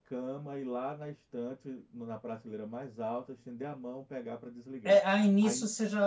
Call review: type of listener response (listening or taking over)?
taking over